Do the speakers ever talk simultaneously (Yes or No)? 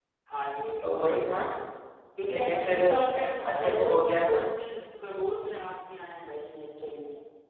Yes